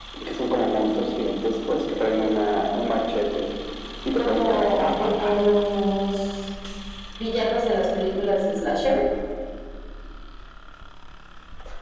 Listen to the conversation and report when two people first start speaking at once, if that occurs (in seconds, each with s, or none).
4.2 s